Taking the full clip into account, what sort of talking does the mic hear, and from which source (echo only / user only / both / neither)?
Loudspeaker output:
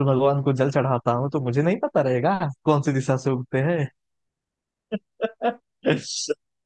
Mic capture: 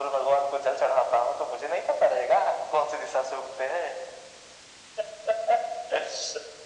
echo only